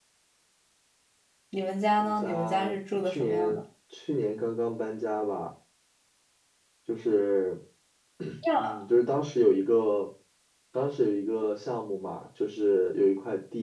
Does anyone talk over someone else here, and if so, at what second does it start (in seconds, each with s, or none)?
2.0 s